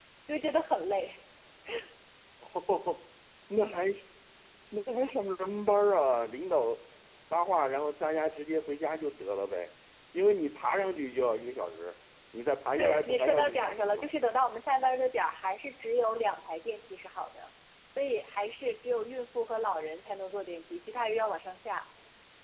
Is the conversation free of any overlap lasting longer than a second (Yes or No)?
No